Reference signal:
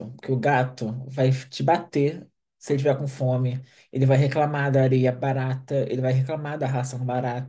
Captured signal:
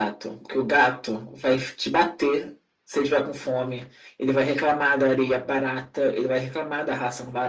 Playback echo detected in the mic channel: Yes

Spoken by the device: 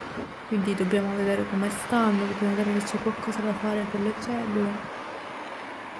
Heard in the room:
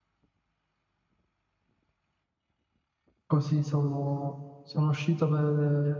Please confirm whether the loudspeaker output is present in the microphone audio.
No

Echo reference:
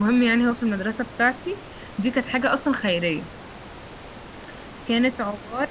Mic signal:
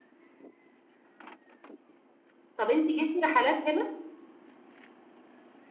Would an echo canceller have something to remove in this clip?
No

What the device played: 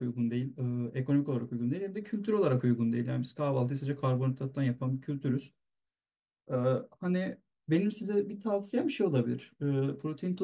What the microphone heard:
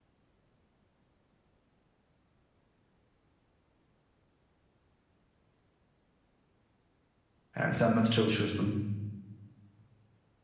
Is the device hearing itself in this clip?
No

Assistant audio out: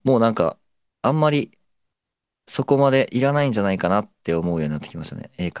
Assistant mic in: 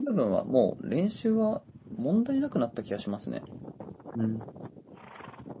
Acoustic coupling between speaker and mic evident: No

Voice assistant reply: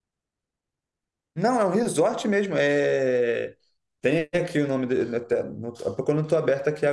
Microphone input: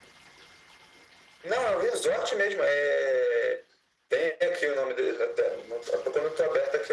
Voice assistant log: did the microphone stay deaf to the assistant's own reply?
No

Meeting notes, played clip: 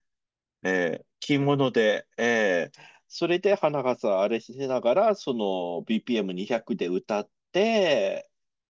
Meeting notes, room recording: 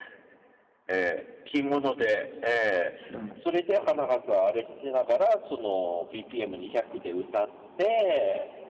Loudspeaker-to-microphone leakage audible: Yes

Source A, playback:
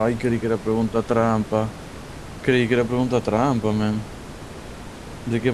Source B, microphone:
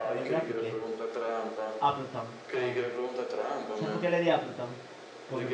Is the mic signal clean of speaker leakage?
No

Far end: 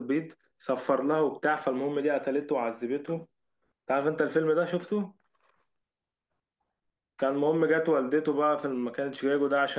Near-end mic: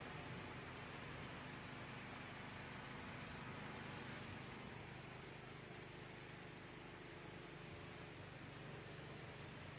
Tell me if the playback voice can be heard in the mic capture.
No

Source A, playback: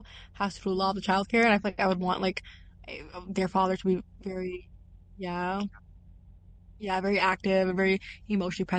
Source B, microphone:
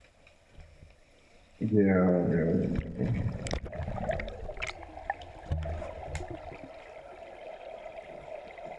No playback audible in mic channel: Yes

